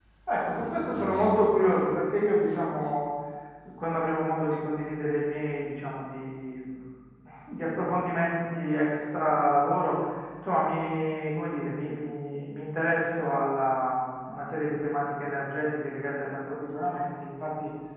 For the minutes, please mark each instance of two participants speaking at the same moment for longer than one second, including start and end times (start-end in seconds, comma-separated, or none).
0.6-1.9